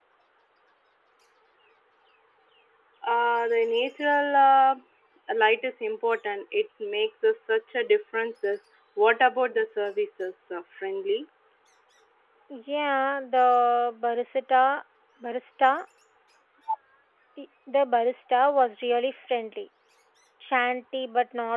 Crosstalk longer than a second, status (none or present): none